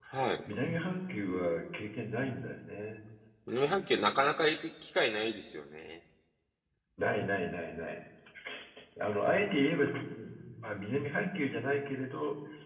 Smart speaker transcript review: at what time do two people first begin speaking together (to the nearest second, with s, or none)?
none